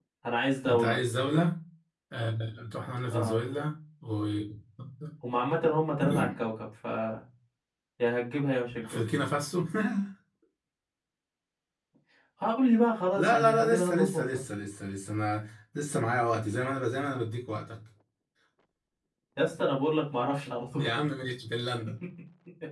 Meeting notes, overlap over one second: present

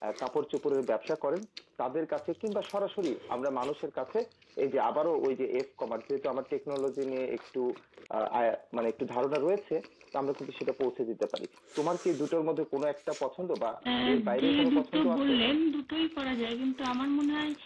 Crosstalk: present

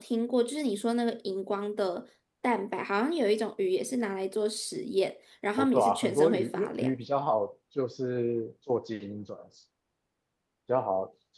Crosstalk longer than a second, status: present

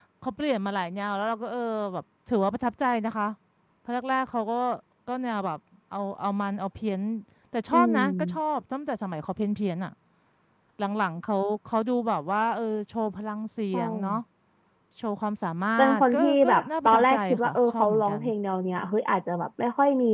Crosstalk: present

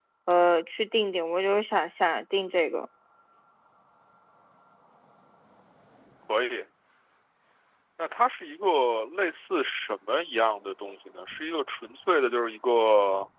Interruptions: none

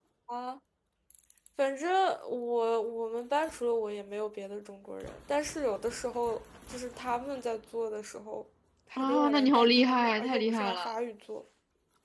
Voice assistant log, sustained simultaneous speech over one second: present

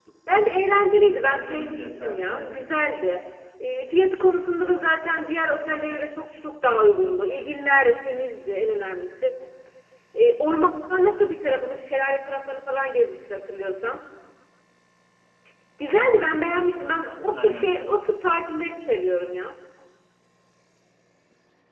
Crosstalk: present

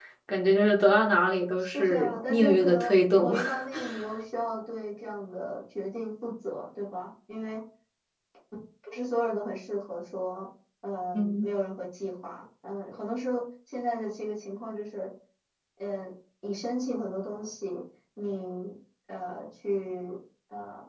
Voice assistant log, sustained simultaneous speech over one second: present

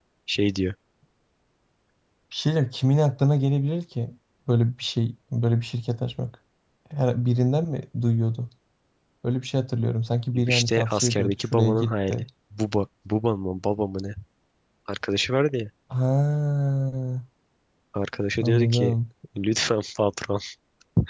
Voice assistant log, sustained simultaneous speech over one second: present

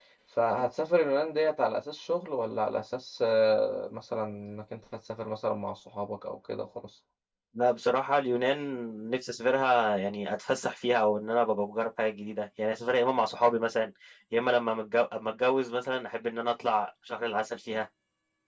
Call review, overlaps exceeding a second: none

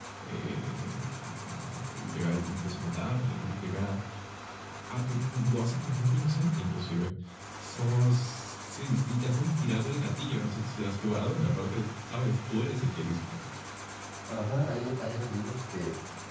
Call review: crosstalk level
none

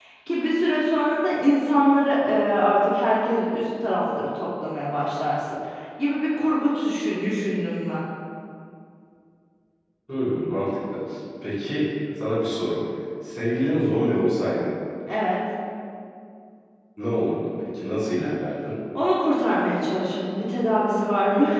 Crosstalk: none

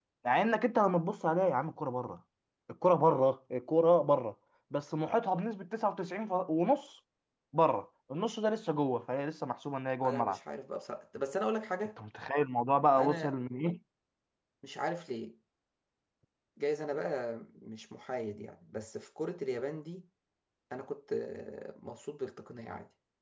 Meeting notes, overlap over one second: none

